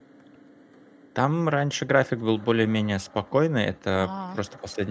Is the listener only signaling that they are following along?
Yes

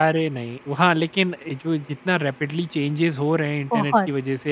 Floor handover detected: No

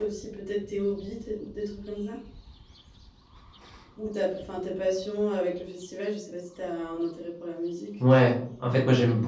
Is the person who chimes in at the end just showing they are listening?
No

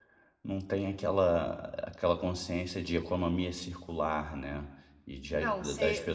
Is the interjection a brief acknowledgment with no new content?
No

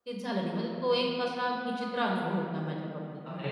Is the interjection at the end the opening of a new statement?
Yes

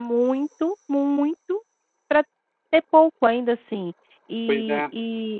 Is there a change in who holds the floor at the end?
No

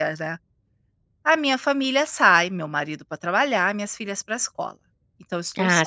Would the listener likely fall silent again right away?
No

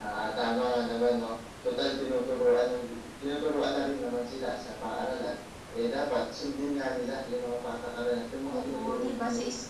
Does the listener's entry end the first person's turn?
Yes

